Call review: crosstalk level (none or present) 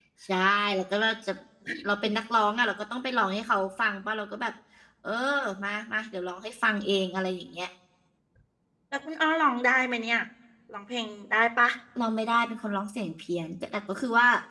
none